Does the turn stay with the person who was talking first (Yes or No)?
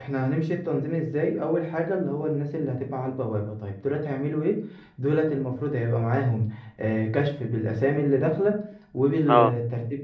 Yes